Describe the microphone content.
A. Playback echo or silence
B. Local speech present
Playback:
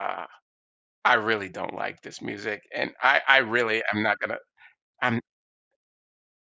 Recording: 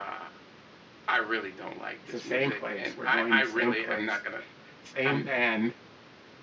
B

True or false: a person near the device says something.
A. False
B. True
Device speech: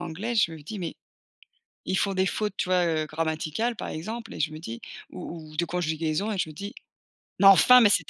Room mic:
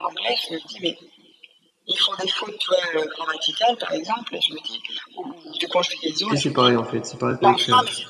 B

